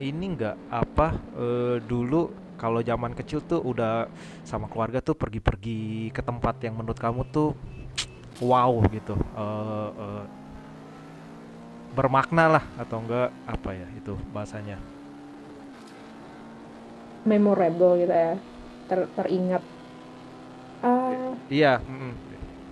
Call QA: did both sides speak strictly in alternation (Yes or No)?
Yes